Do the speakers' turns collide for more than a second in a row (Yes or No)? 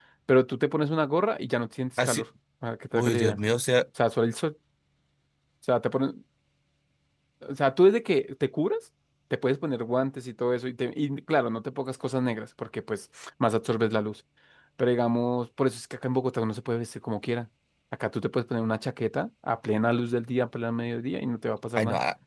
No